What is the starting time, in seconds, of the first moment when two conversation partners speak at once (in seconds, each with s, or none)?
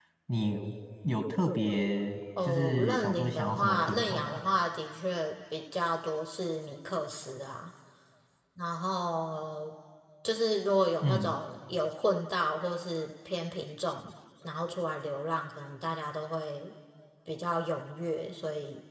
2.4 s